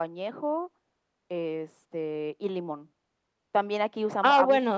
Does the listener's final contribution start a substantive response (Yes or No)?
Yes